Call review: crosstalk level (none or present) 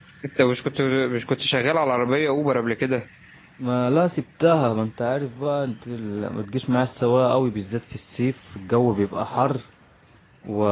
none